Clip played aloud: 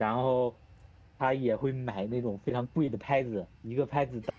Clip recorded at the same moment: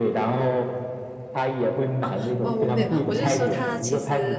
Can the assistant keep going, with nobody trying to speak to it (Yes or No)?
No